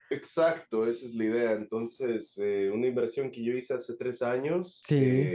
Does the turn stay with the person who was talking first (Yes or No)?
Yes